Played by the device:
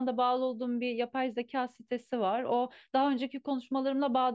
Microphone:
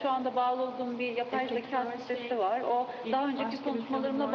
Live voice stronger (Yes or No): No